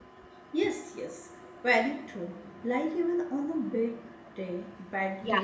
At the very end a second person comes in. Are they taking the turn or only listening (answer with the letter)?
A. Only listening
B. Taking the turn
A